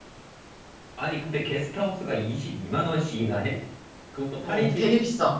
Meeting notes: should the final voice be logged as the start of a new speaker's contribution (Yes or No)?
Yes